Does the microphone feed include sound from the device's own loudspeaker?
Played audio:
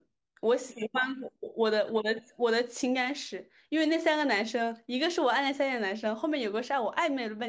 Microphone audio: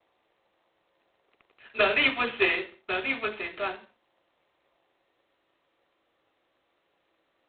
No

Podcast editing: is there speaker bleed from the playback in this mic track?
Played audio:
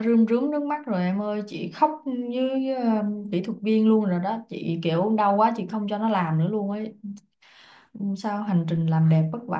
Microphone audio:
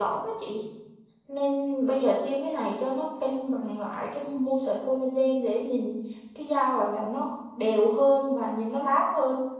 No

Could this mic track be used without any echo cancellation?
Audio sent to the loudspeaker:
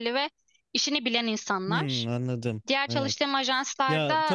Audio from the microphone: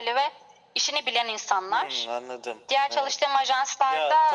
No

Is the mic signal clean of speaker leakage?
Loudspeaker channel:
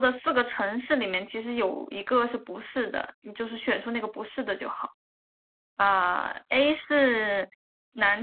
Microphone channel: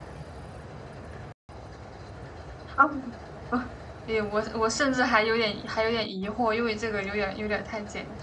Yes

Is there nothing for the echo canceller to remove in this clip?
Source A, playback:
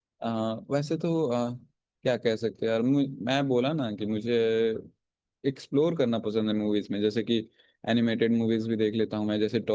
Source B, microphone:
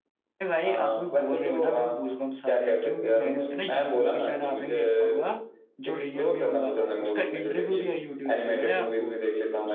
No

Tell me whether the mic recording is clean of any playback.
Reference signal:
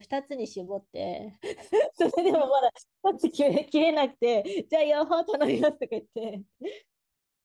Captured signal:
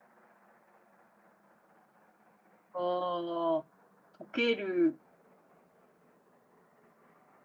Yes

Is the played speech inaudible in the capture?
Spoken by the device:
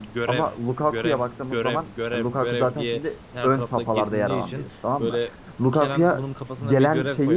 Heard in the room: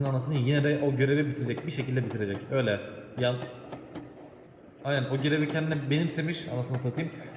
Yes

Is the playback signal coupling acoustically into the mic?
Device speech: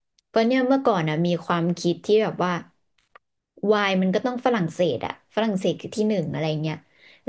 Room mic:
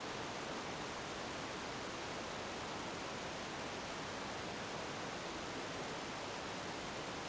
No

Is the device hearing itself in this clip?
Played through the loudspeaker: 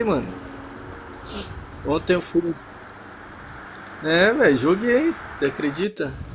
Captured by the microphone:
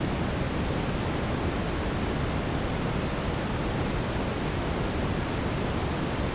No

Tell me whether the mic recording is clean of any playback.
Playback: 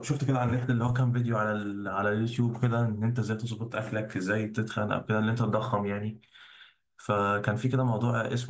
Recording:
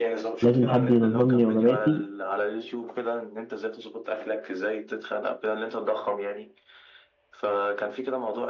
No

